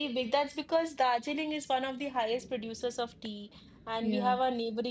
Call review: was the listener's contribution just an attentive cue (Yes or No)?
Yes